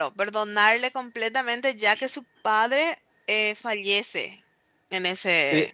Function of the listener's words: taking over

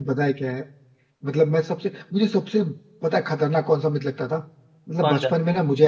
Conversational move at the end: listening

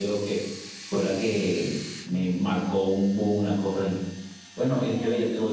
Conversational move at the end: listening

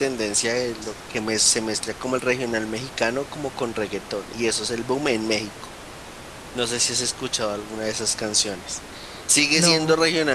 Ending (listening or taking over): listening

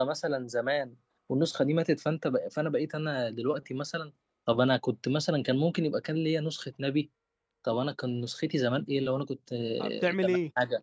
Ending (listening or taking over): taking over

